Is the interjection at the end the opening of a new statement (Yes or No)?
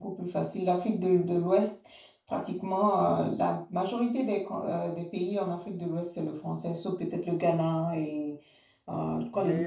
Yes